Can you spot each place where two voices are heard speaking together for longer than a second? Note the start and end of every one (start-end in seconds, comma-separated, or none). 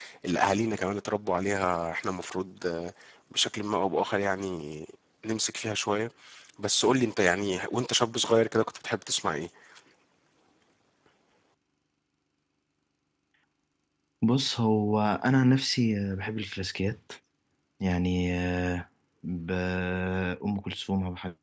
none